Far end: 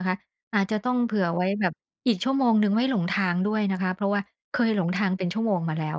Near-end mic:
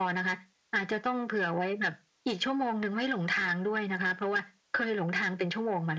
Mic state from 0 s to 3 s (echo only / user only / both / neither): echo only